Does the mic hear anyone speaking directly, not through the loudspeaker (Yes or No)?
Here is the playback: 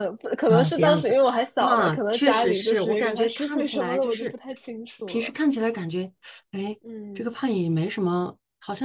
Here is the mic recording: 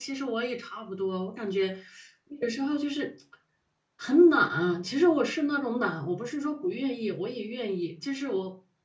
Yes